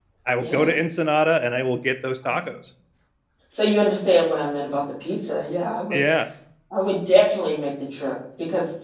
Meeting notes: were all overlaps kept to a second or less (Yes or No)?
Yes